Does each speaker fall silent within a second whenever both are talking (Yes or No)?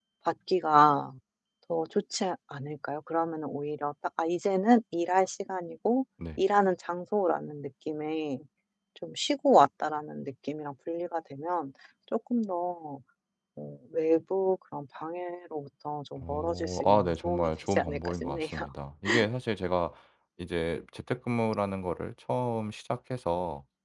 No